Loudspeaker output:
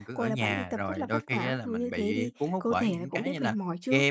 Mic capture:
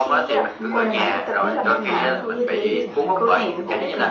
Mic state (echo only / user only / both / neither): both